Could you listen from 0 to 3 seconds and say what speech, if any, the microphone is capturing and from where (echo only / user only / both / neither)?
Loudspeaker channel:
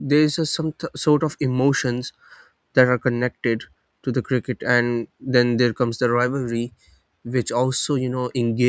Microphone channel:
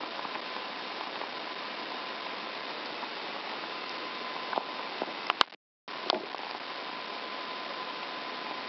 neither